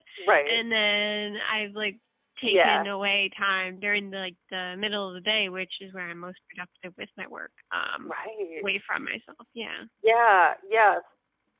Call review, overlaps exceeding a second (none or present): none